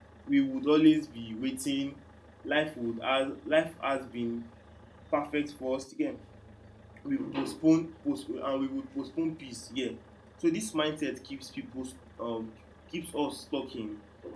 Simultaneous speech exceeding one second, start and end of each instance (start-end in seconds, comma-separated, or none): none